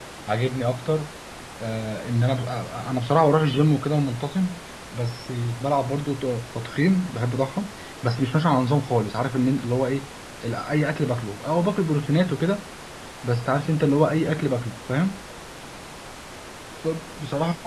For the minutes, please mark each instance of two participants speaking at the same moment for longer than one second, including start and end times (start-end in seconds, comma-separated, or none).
none